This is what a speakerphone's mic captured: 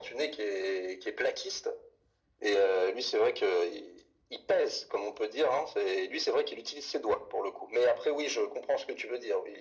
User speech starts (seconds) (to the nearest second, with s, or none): none